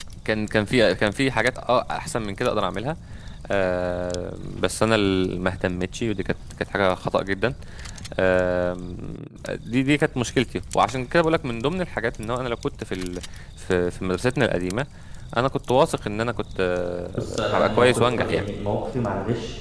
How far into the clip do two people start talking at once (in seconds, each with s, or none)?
17.2 s